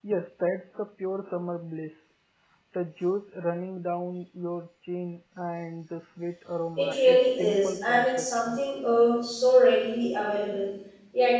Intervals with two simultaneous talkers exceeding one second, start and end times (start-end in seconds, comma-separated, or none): 6.8-8.6